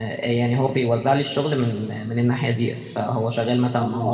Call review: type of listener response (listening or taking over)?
taking over